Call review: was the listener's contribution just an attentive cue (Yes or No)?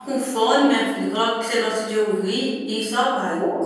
No